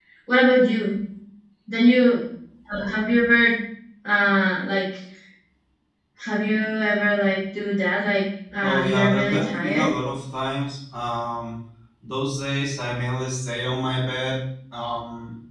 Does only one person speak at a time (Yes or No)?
No